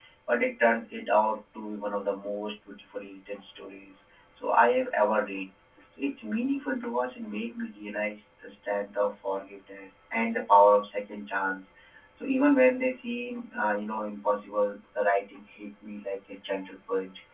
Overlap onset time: none

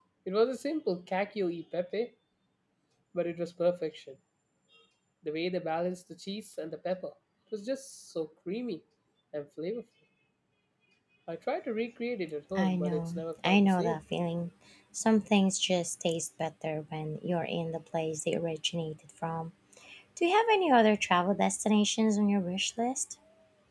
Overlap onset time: 12.6 s

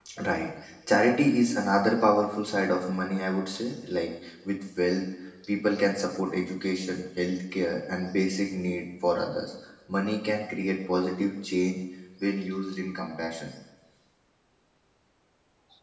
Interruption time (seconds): none

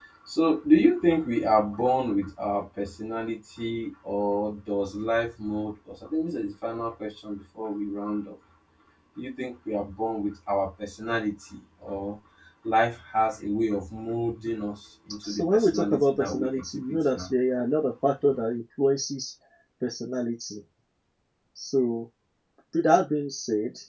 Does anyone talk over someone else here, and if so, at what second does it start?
15.2 s

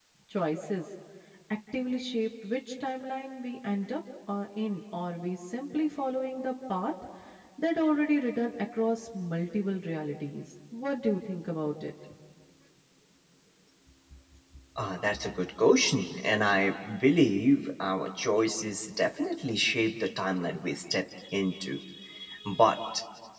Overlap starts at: none

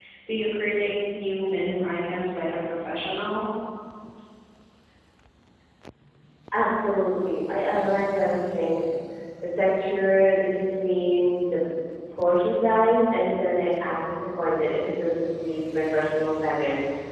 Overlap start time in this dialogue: none

